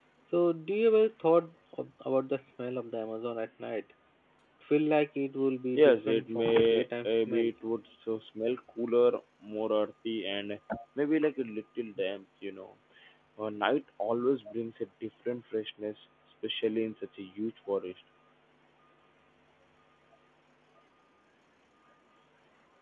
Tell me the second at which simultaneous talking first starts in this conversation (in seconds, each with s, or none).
5.7 s